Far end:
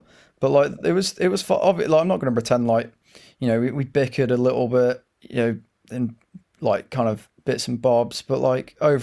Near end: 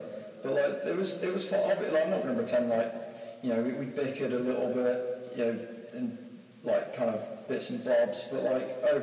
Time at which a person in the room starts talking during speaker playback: none

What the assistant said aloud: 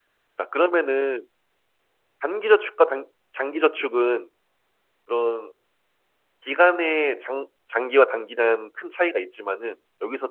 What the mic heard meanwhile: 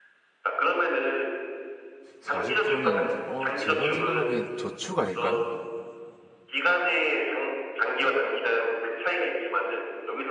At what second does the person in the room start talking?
2 s

